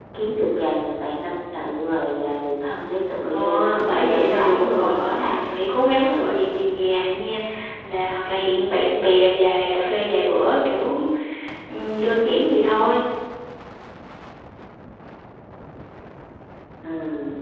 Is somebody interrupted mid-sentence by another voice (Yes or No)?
Yes